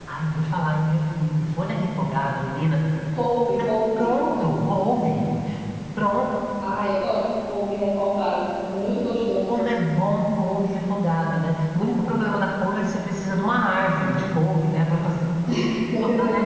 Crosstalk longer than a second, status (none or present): none